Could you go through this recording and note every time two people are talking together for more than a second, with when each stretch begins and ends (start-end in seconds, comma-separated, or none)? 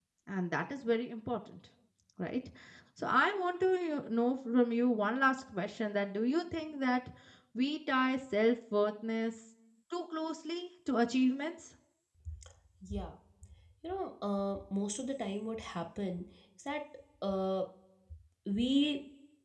none